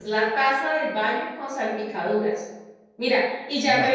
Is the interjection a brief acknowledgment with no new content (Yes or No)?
Yes